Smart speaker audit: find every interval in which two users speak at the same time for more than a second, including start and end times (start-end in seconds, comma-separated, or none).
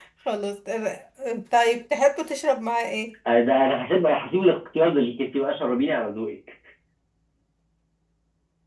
none